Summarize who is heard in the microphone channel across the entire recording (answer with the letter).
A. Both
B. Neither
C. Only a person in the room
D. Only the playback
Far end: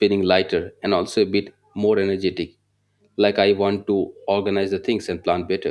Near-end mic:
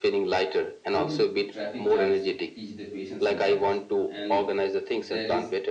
A